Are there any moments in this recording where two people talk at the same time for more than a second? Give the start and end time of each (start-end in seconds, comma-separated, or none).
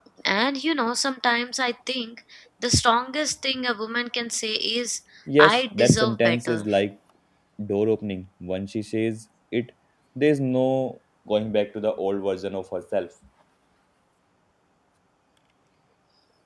5.4-6.6